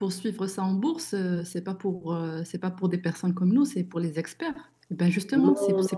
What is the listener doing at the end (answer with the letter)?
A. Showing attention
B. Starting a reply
B